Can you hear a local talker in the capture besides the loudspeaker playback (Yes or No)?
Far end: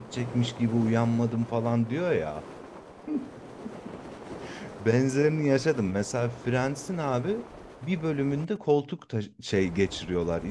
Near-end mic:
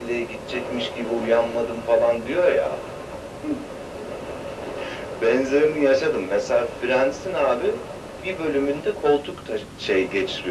No